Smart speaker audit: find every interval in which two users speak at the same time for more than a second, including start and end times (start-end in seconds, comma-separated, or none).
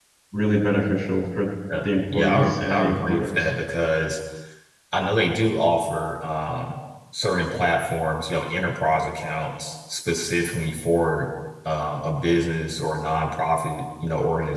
1.8-3.5